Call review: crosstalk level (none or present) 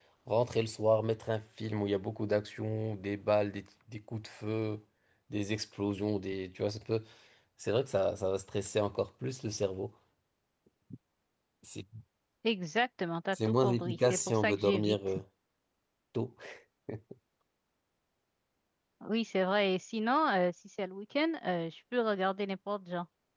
present